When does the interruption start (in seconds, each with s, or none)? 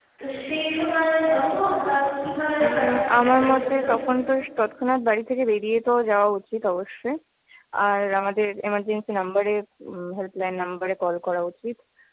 2.5 s